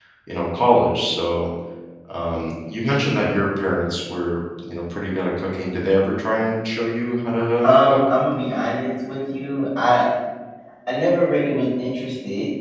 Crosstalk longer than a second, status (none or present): none